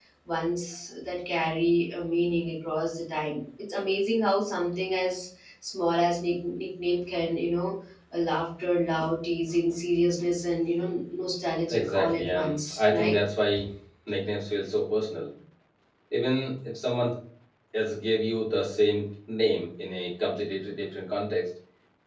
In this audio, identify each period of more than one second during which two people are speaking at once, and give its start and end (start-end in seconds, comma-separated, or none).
11.7-13.1